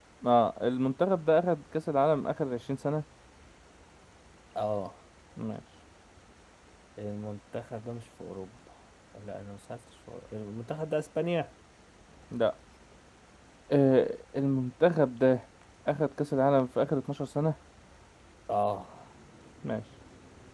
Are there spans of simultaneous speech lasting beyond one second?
No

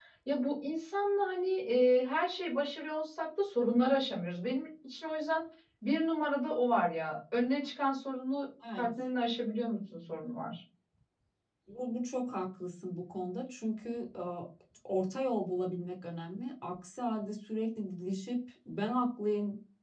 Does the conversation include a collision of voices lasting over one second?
No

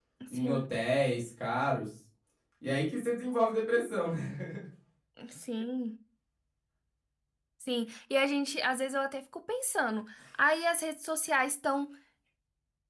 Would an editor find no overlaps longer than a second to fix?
Yes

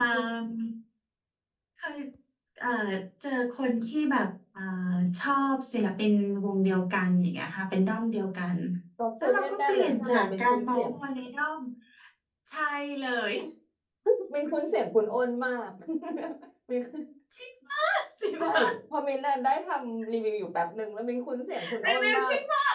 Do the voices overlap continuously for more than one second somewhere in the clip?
Yes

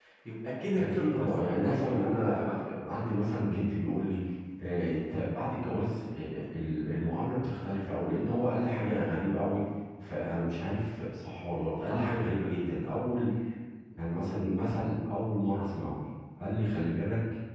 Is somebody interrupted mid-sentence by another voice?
Yes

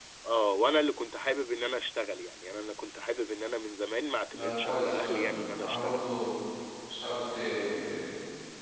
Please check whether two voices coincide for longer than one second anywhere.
Yes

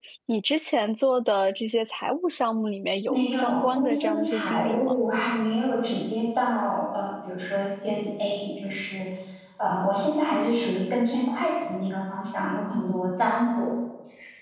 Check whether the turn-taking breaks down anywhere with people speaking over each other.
Yes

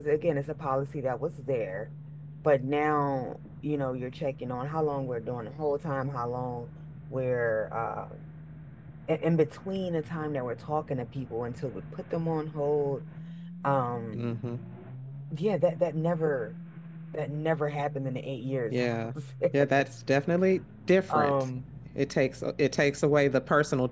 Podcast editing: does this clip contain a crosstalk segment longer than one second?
No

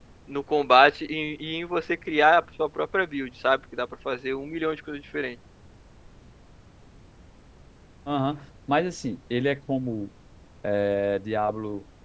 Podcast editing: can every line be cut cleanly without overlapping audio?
Yes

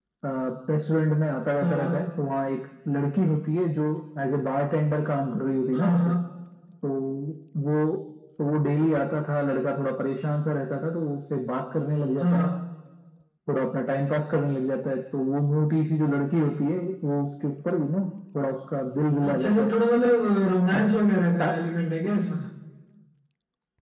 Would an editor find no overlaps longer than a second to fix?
Yes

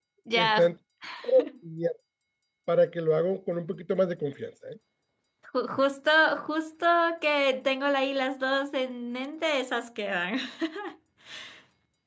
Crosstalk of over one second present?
No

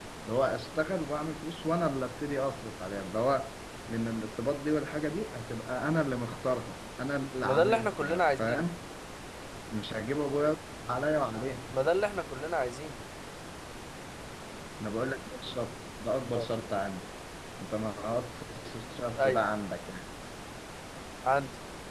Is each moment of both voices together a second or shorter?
No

